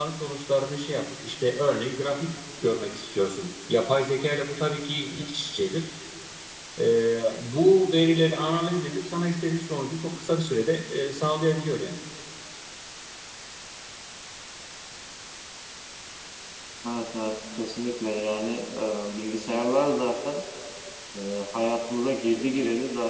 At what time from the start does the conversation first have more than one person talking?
none

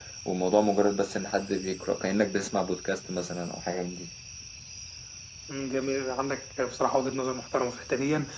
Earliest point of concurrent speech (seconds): none

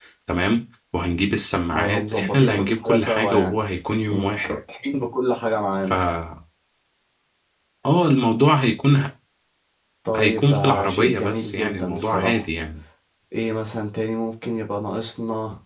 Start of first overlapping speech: 1.7 s

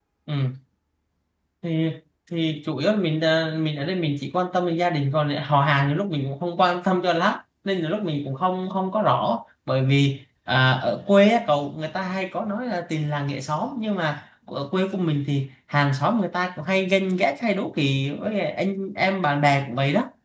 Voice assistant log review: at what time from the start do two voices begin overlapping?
none

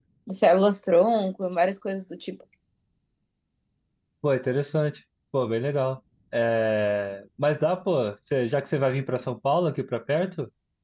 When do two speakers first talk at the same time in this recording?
none

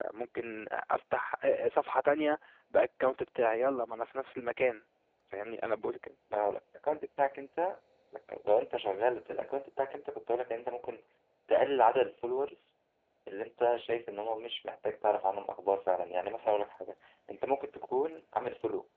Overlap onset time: none

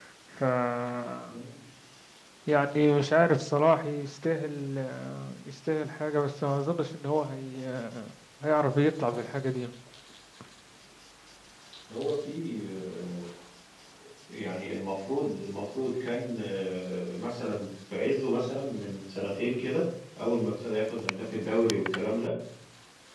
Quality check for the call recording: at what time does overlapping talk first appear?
none

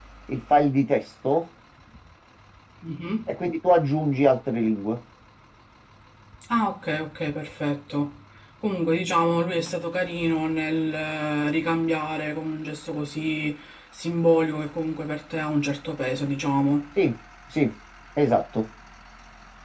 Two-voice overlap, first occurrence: none

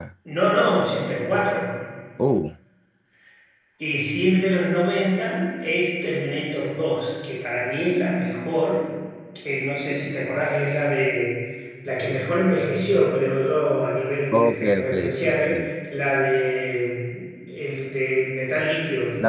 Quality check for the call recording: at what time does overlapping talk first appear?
14.3 s

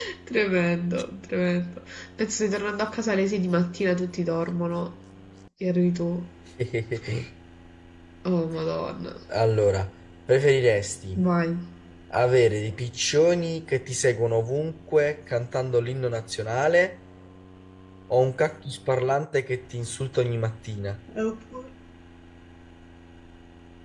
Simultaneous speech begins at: none

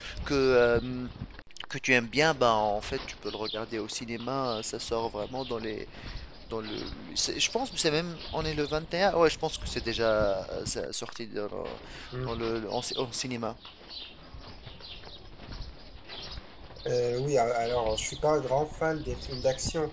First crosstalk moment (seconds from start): none

